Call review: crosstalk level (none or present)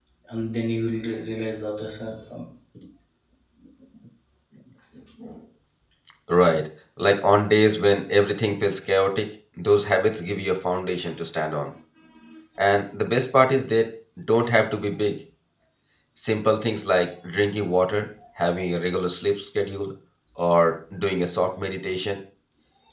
none